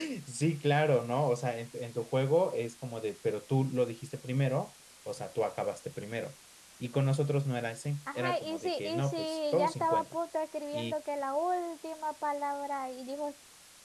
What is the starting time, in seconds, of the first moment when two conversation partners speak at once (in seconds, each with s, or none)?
8.1 s